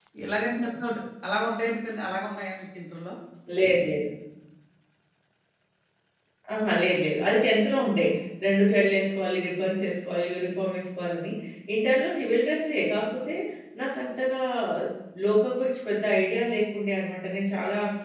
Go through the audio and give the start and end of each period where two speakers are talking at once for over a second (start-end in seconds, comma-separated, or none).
none